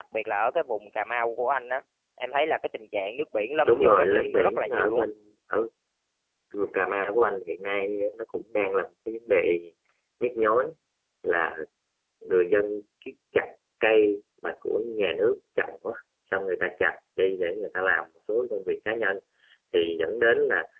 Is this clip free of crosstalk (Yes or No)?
No